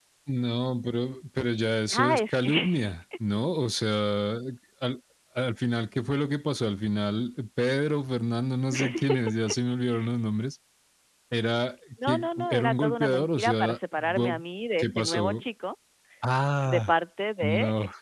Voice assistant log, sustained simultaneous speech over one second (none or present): present